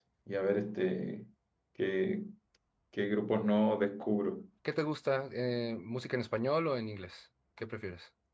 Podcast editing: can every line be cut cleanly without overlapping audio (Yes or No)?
Yes